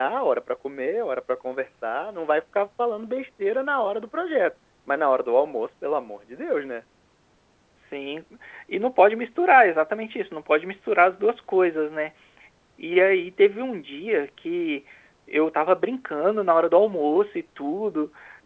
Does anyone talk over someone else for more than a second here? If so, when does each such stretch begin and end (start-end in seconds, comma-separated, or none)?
none